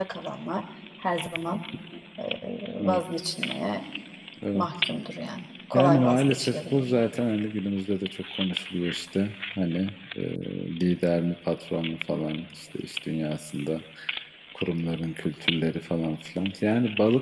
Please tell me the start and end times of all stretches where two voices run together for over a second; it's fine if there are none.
5.7-7.0

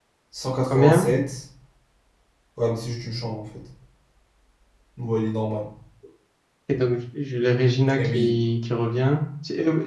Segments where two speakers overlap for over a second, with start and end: none

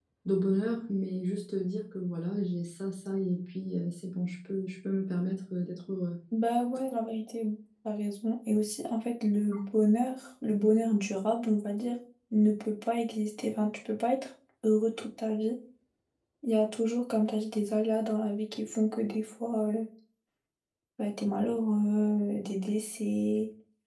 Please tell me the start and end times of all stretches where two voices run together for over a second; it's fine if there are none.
none

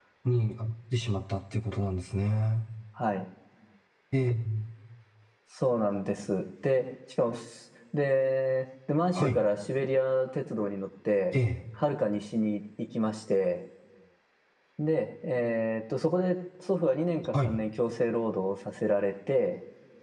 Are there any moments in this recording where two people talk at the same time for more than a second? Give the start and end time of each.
none

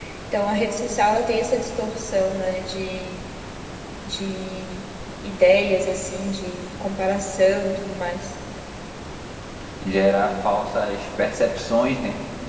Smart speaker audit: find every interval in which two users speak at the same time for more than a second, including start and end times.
none

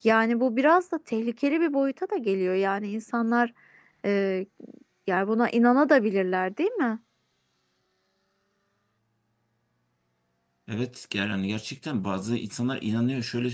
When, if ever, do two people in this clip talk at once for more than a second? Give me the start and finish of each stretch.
none

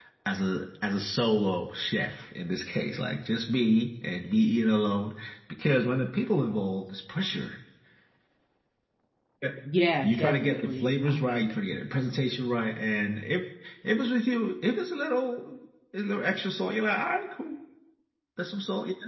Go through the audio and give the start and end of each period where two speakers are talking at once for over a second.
10.0-11.5

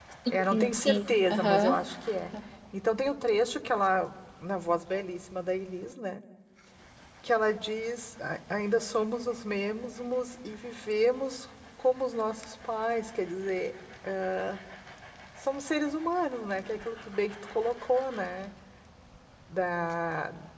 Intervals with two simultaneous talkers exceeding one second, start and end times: 0.5-1.9

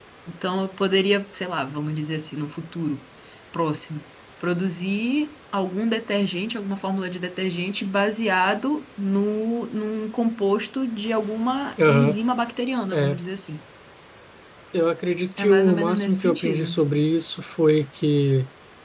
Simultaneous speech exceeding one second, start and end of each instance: 15.4-16.7

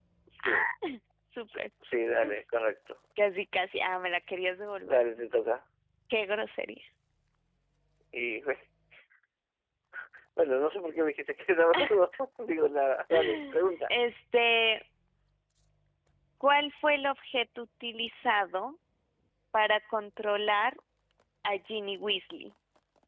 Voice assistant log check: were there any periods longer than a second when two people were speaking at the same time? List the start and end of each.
none

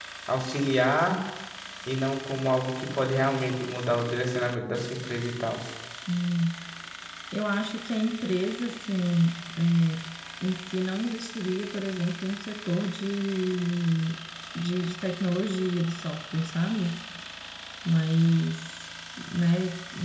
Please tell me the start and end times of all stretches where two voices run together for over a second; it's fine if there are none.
none

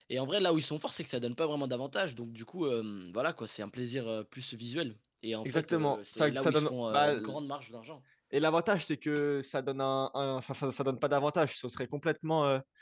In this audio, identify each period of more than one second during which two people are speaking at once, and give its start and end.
5.5-7.2

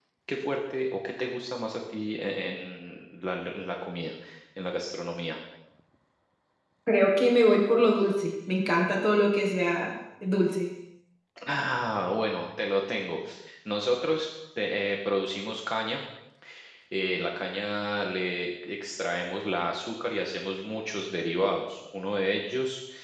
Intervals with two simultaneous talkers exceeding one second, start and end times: none

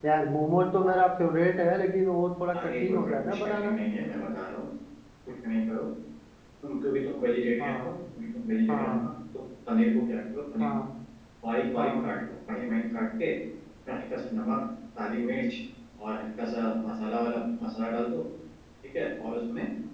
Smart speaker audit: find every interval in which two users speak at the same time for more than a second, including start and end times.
2.6-3.8

